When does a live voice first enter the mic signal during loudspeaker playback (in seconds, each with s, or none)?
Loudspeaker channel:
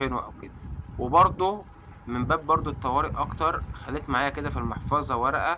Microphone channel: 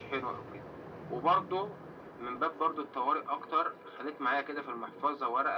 none